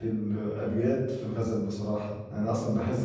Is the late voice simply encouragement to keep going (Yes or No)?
Yes